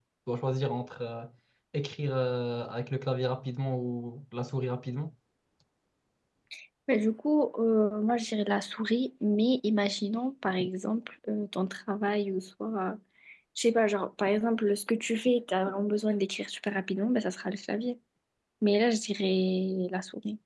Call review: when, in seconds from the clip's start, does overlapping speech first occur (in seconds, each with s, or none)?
none